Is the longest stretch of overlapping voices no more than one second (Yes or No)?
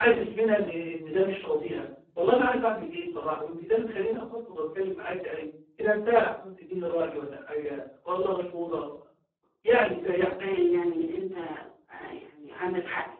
Yes